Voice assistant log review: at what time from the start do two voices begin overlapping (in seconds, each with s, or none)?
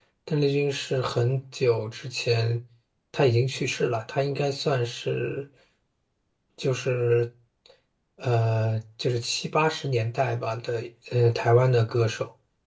none